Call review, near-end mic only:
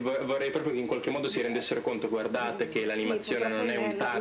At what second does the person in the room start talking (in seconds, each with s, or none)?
1.3 s